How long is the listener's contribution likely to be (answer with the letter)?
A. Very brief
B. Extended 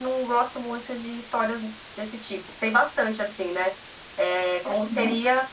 A